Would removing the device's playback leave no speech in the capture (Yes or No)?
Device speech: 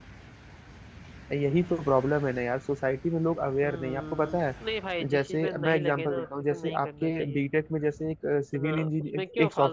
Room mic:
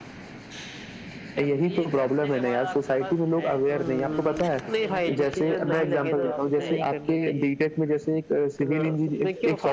No